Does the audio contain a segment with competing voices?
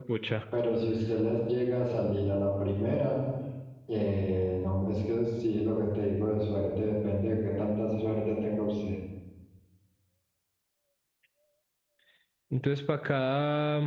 No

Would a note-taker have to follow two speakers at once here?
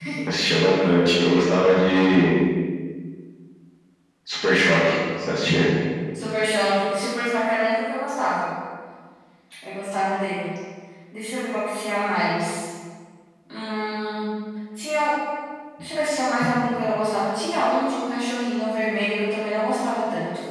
No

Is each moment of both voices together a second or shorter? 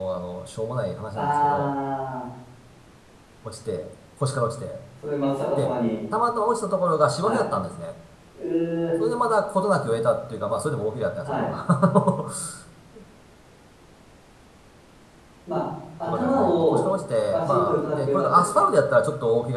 No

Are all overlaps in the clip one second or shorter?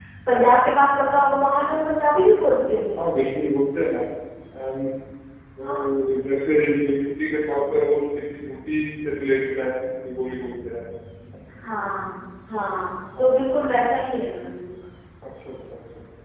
Yes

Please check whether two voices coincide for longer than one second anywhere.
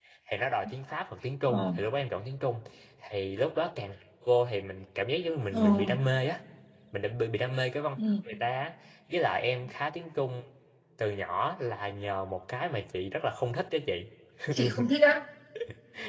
No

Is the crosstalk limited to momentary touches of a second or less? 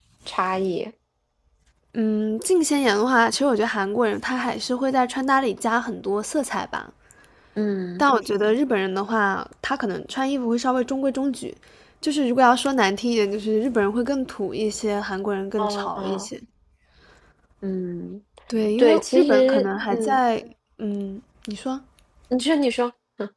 No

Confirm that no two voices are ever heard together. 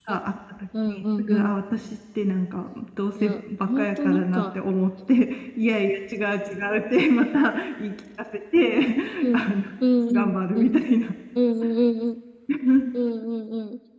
No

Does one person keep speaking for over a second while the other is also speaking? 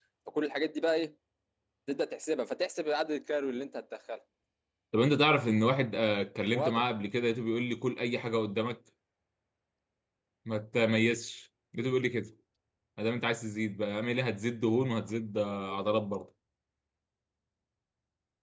No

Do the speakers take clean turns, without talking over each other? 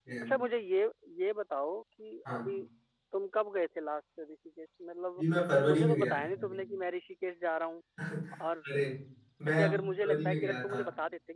No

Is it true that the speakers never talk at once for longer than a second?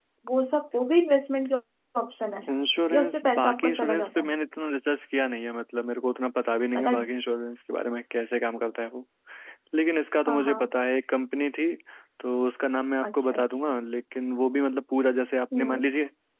No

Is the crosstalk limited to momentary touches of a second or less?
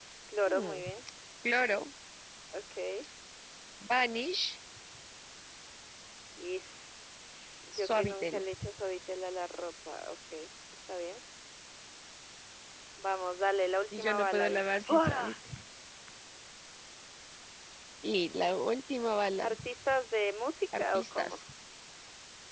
No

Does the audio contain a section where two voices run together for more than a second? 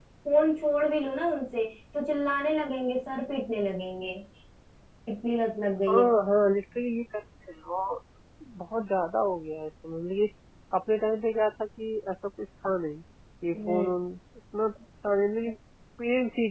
No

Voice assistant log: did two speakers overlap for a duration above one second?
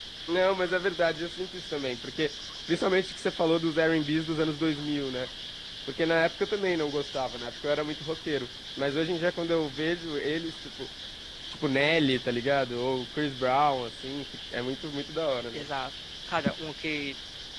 No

